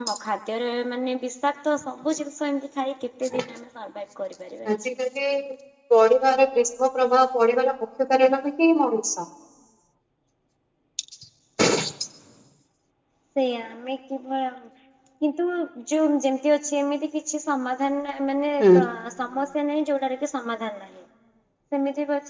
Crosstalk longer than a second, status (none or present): none